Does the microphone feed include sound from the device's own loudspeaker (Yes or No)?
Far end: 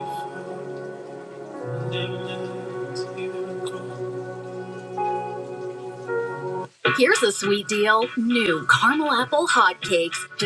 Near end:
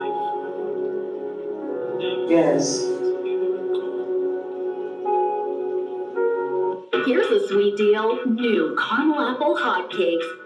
Yes